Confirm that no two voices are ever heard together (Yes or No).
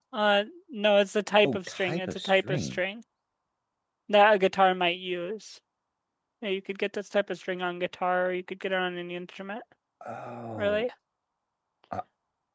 No